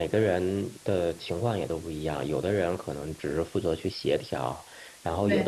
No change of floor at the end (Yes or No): Yes